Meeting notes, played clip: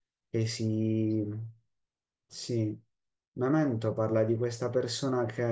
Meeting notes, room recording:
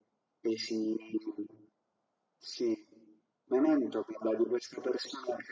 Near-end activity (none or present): none